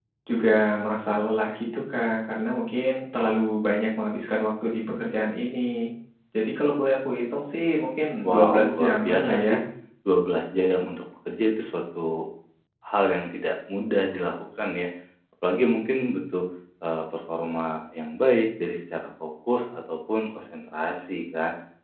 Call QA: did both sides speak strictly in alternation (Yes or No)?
No